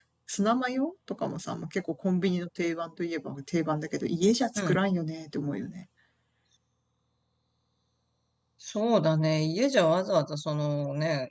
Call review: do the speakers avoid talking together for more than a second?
Yes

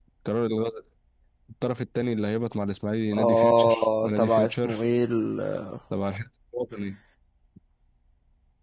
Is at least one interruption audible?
Yes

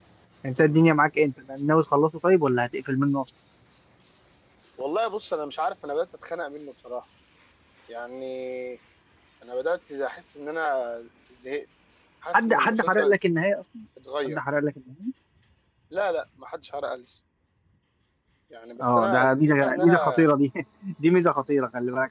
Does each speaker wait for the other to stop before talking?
No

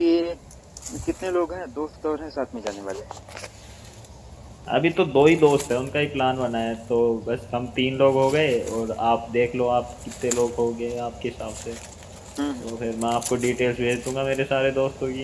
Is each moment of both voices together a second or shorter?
Yes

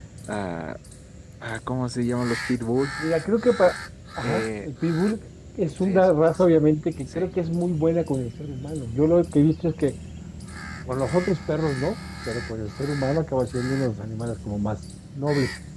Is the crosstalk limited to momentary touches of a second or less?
Yes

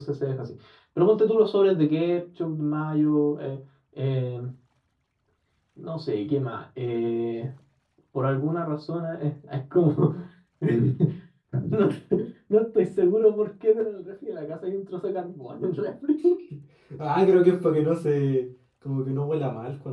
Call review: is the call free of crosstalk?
Yes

